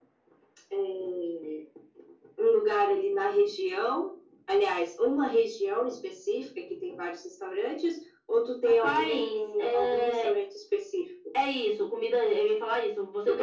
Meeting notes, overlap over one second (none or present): present